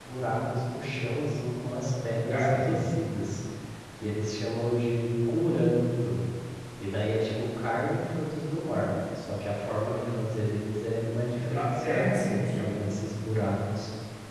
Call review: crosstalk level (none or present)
present